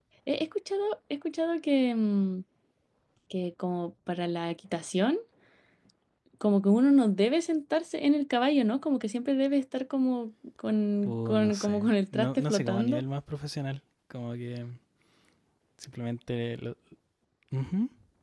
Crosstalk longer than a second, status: present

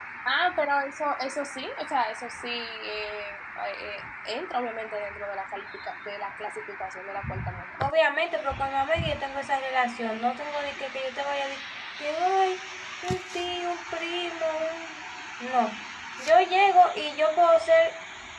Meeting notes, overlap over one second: none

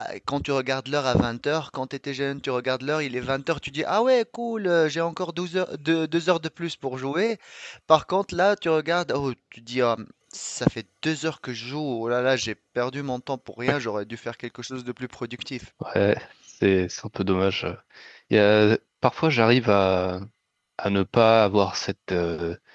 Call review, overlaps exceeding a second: none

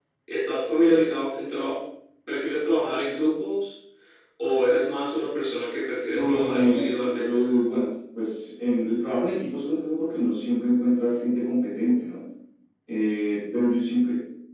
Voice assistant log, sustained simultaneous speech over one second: present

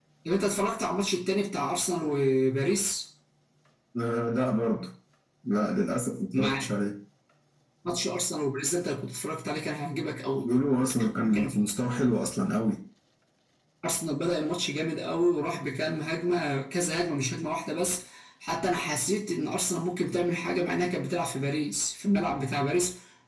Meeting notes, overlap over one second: none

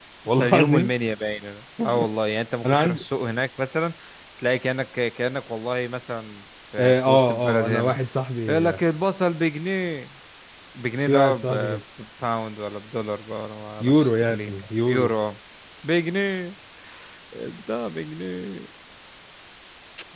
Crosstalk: present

